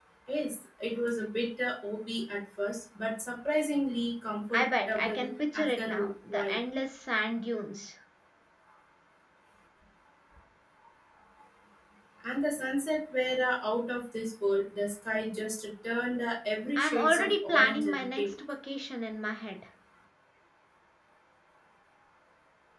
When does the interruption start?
4.5 s

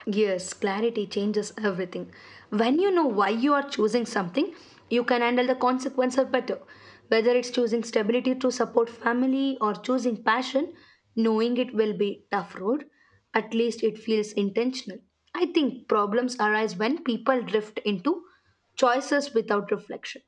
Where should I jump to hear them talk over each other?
none

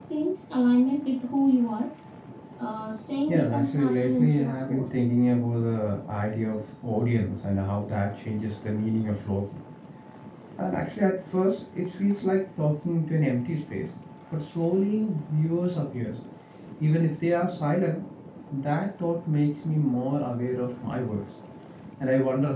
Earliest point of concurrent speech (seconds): 3.3 s

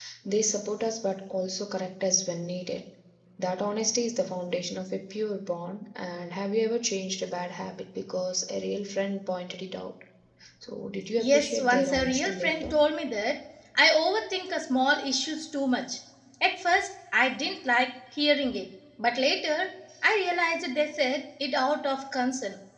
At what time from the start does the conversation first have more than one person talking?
11.2 s

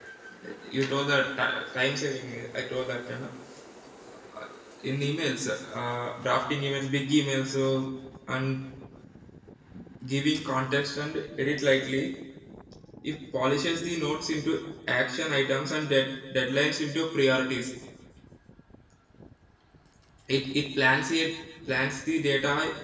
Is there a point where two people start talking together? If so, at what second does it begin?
none

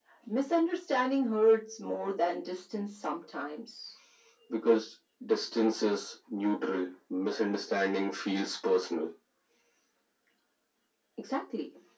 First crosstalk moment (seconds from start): none

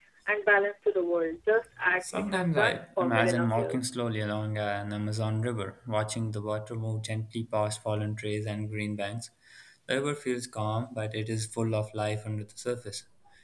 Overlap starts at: 2.0 s

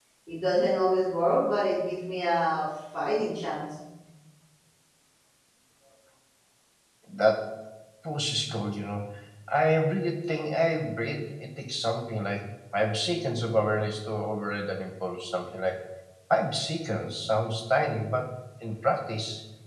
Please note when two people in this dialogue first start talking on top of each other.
none

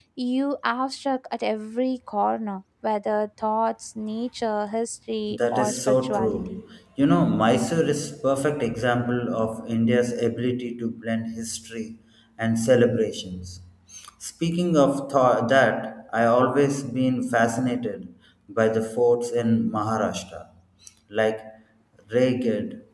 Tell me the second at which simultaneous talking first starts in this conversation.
5.3 s

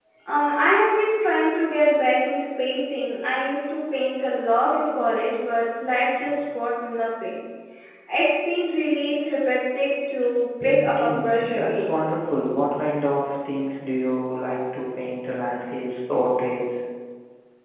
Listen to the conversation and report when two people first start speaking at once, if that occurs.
10.6 s

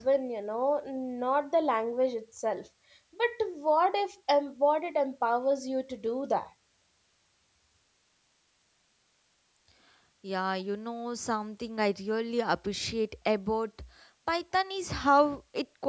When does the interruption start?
none

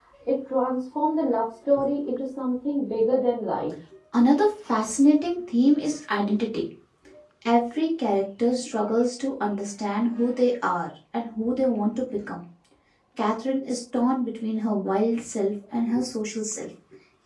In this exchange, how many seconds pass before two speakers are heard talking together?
none

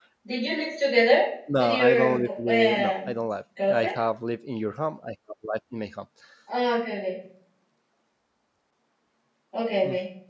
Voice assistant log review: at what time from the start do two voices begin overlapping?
1.6 s

